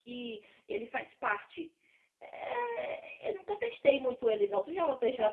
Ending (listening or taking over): taking over